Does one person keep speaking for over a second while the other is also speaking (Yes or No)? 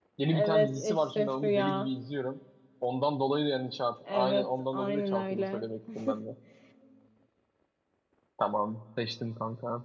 Yes